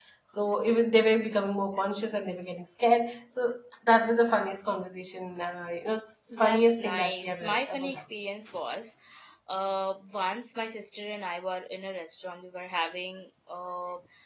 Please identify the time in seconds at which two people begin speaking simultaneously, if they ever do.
6.3 s

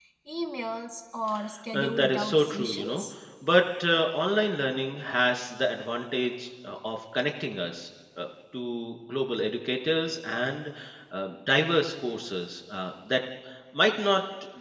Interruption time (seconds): 1.7 s

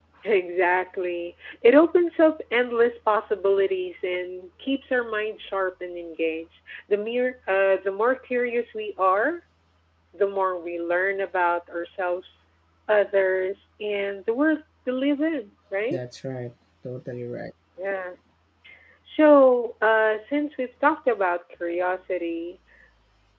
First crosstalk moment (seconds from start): none

